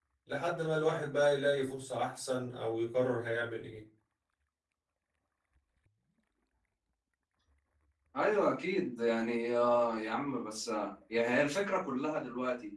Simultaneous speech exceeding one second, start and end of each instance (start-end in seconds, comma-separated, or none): none